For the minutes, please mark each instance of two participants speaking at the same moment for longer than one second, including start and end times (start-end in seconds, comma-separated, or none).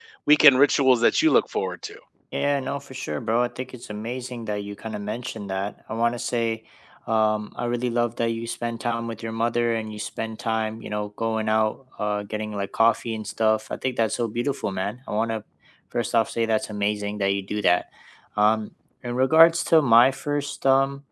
none